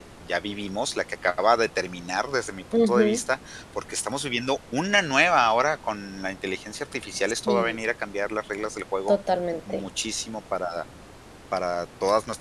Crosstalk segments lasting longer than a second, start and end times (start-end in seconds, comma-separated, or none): none